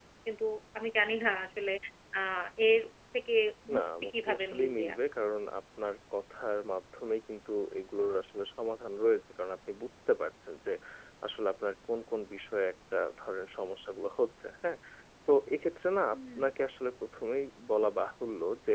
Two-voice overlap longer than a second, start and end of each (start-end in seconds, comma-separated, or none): 3.8-5.0